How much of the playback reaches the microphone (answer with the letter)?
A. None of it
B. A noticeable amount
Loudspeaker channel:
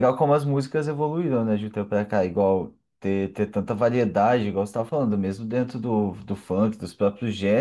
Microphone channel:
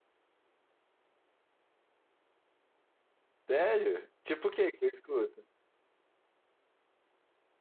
A